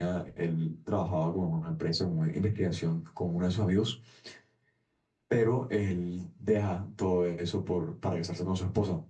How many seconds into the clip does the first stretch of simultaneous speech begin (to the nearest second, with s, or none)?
none